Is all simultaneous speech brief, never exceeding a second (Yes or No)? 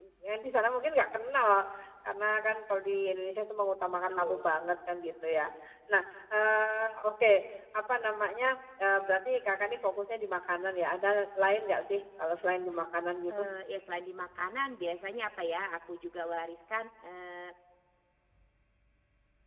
Yes